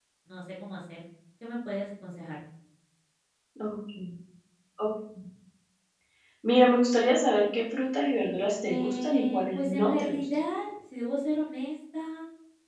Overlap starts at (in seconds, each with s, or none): 8.7 s